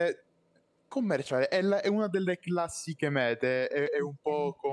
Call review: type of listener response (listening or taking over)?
listening